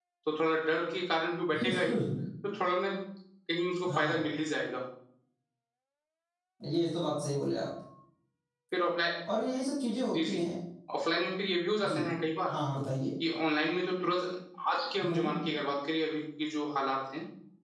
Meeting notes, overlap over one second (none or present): none